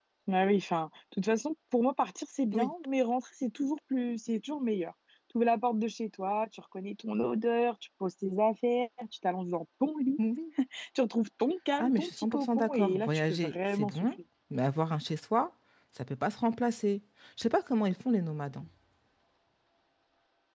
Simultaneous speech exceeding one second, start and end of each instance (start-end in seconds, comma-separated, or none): 11.8-14.1